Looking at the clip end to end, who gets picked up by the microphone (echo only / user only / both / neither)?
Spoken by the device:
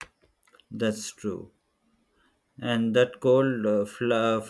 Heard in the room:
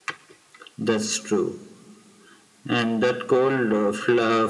echo only